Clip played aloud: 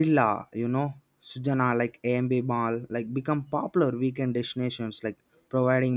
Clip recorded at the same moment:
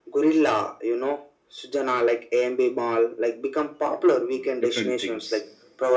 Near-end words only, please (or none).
mm, different things